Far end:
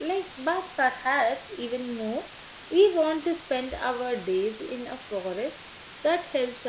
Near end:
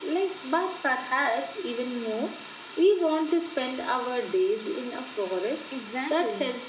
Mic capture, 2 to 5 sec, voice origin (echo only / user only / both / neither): echo only